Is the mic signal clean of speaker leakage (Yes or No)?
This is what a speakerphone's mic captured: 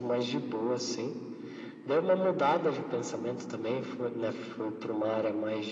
No